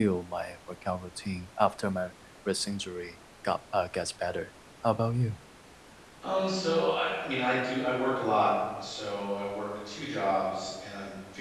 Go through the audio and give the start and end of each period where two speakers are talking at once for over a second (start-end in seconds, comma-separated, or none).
none